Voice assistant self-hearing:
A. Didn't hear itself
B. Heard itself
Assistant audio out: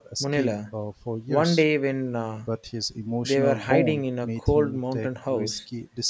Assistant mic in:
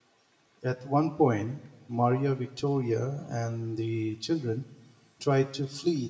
A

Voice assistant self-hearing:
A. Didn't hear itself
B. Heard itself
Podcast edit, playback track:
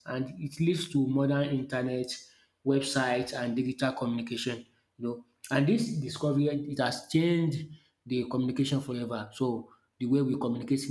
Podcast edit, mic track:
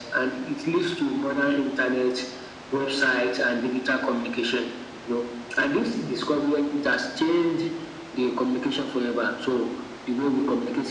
B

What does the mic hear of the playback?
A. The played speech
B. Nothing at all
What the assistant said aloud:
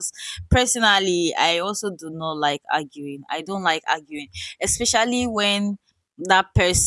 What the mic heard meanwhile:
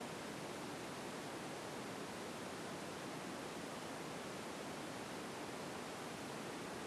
B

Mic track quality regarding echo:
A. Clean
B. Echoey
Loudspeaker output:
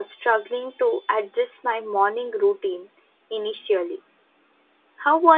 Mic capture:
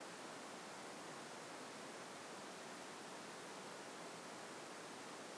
A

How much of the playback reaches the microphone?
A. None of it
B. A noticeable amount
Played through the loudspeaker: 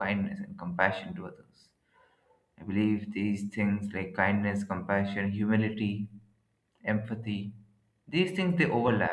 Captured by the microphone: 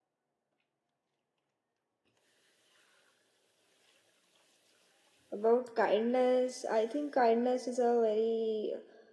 A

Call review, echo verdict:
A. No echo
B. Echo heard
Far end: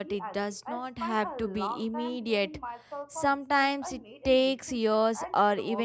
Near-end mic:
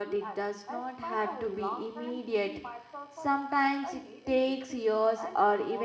B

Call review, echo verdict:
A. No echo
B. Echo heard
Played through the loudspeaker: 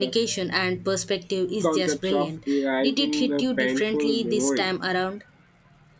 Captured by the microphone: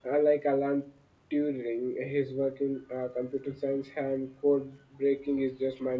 A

